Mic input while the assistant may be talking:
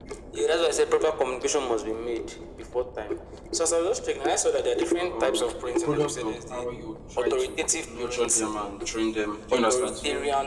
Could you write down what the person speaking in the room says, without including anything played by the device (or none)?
um, a product of how you try to nurture them and train them. Do you understand? So